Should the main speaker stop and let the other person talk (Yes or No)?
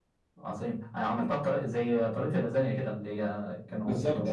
Yes